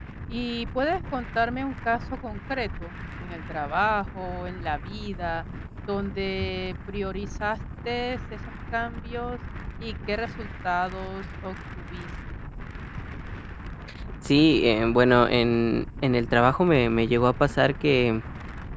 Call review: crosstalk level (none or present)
none